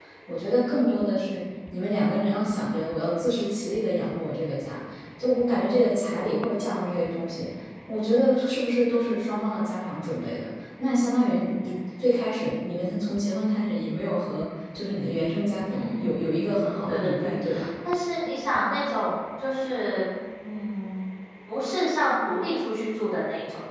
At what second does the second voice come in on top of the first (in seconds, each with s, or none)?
15.7 s